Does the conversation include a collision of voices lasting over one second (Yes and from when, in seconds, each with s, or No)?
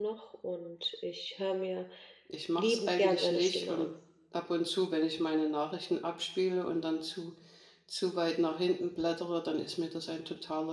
Yes, from 2.6 s